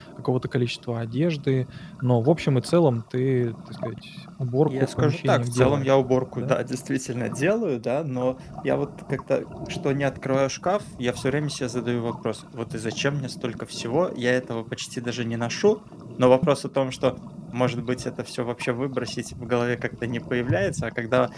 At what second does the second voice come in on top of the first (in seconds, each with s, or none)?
4.7 s